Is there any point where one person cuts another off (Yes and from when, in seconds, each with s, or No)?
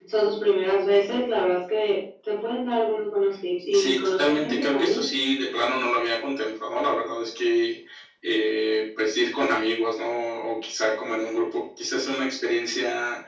Yes, from 3.7 s